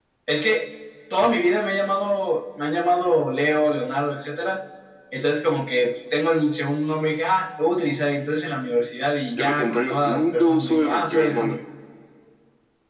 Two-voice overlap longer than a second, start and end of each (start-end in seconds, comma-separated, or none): 9.3-11.6